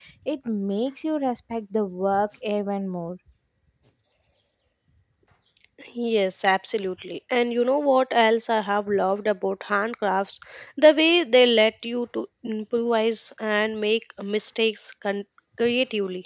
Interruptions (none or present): none